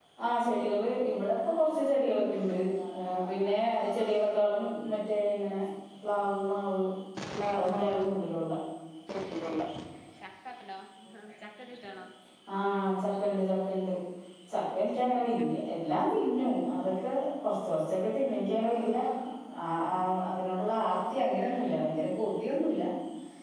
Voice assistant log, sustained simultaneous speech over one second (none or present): none